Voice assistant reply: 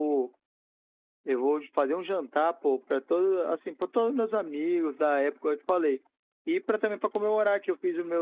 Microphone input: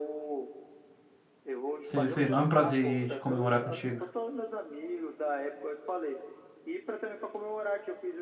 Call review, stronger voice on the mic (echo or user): user